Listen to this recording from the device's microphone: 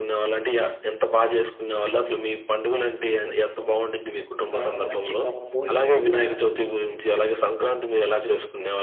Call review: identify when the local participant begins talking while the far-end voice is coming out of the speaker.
4.6 s

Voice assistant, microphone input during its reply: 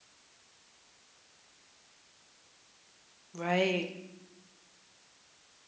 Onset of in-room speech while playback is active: 3.3 s

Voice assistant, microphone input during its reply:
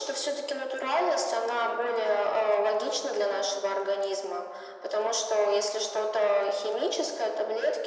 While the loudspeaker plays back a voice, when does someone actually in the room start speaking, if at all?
none

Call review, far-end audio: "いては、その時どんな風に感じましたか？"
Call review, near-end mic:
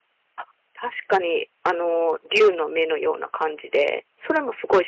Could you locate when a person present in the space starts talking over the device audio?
0.3 s

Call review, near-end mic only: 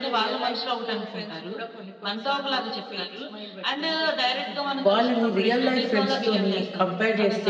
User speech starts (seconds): 4.9 s

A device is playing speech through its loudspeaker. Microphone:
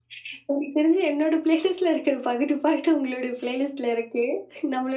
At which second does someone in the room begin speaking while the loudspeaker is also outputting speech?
none

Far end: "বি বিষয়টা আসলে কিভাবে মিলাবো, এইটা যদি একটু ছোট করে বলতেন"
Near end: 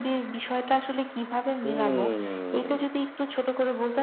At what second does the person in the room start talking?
1.6 s

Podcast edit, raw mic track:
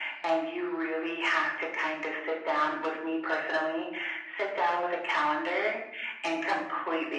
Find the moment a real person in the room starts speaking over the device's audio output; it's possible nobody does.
none

